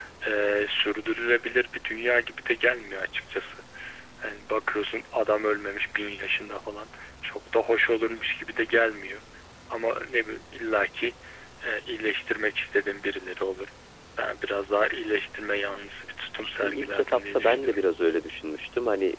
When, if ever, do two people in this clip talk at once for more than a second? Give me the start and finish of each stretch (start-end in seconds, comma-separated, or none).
16.4-17.8